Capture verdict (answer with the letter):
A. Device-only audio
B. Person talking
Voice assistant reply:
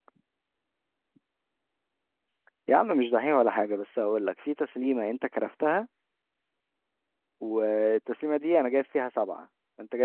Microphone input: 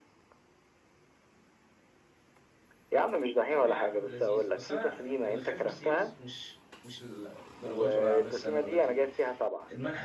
B